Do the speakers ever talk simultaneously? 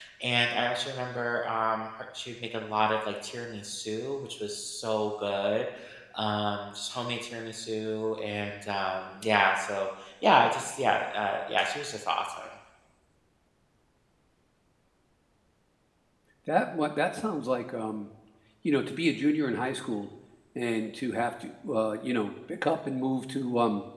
No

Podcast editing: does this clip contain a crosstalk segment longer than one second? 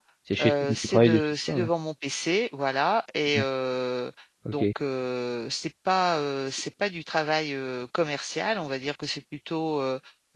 Yes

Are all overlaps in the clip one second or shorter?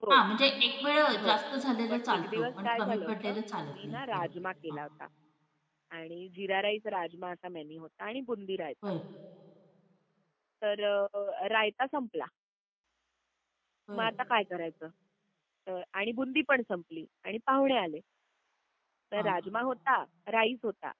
No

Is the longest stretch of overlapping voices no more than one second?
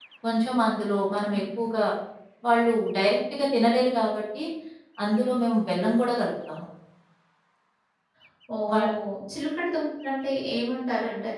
Yes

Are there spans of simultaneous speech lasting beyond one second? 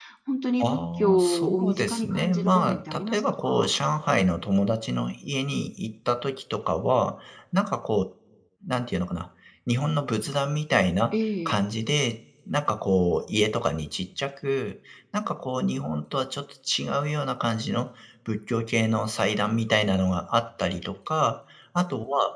Yes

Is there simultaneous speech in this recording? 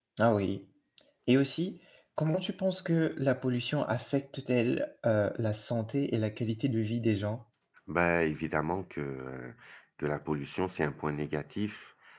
No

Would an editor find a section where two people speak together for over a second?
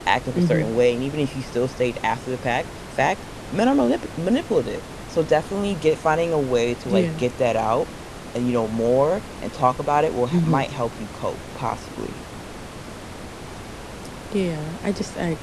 No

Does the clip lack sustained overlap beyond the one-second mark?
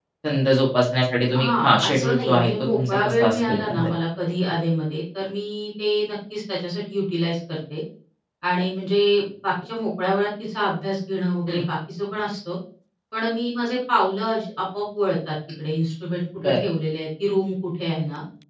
No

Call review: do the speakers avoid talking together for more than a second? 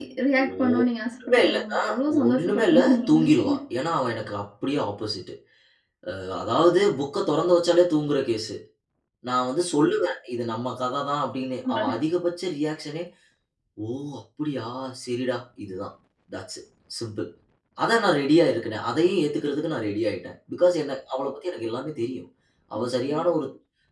No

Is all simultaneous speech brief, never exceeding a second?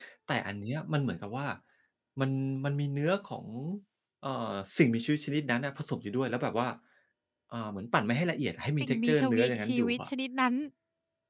No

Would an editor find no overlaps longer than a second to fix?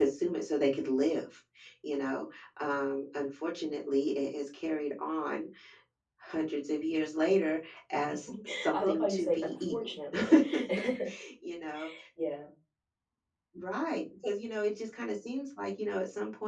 No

